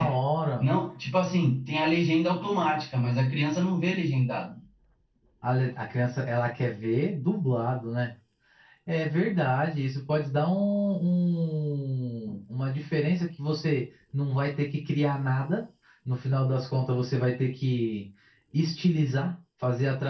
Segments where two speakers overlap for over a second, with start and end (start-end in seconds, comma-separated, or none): none